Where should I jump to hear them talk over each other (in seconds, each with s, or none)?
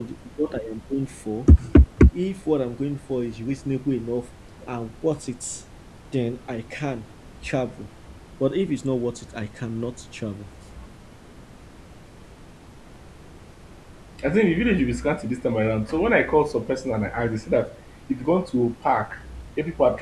none